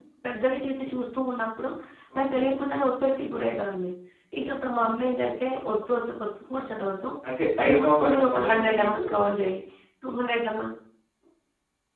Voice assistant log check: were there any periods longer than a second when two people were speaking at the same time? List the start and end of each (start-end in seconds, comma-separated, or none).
7.6-9.0